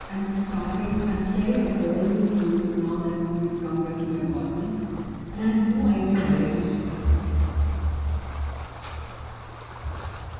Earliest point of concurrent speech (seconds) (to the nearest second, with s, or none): none